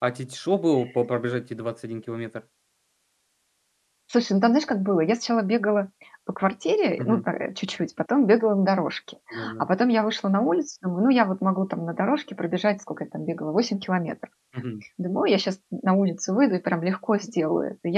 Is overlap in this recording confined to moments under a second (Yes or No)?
Yes